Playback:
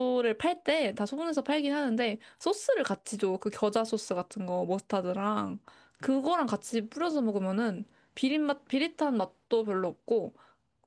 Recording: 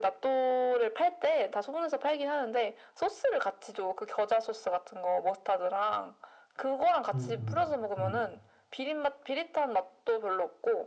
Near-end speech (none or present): present